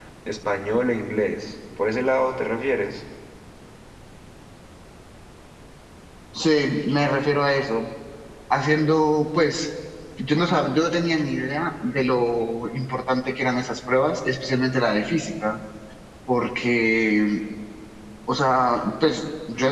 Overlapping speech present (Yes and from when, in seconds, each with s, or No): No